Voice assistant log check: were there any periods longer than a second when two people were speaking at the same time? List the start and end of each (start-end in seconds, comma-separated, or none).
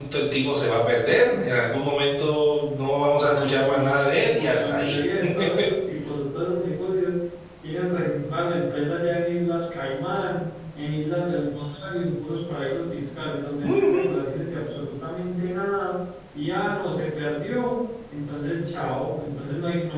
3.2-5.0